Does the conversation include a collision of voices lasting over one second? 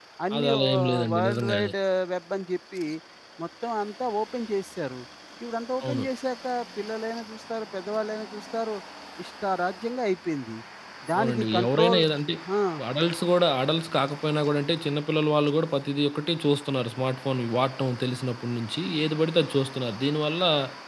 Yes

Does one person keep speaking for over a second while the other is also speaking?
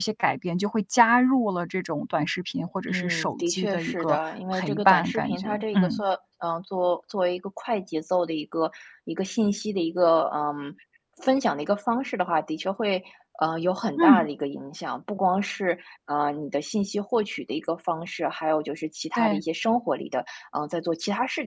Yes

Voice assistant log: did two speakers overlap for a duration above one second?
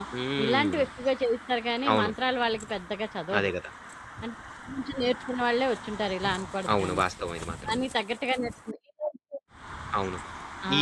No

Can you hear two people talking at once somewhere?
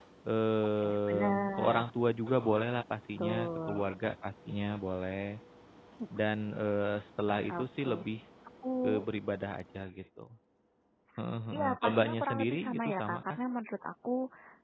Yes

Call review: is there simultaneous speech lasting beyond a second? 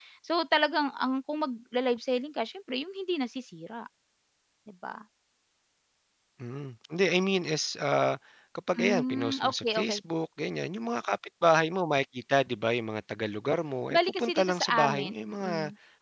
Yes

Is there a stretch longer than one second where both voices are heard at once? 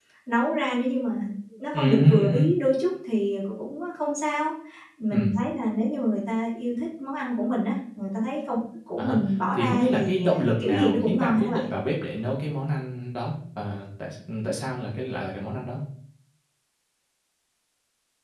Yes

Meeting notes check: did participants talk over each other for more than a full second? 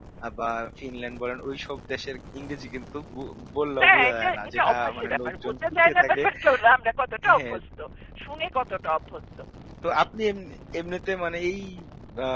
Yes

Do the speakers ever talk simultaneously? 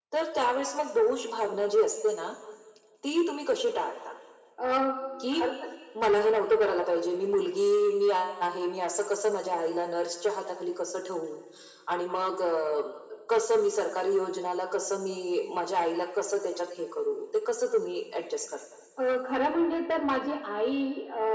No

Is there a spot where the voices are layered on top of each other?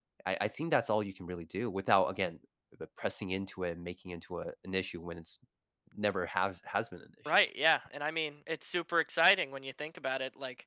No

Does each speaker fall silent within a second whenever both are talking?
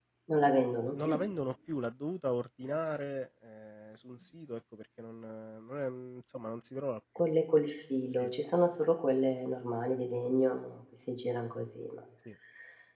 Yes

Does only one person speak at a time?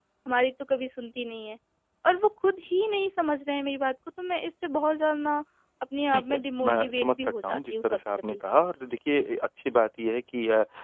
No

